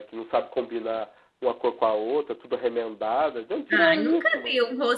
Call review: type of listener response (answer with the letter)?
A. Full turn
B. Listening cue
A